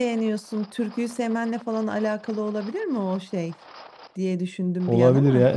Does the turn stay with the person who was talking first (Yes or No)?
No